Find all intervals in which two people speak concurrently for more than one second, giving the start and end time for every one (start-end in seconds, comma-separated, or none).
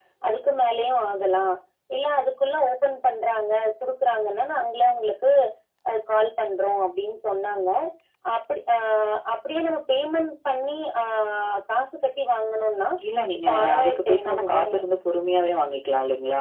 13.5-14.8